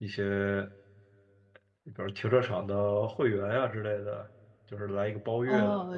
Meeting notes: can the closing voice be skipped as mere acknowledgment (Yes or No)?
No